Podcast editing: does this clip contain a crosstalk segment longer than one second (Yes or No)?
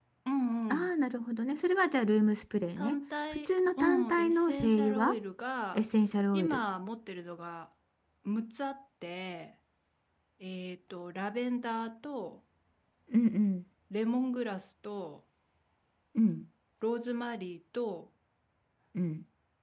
Yes